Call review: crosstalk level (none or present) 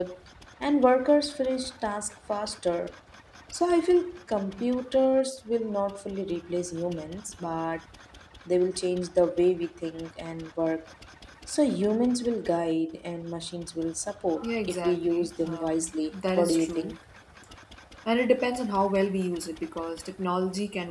present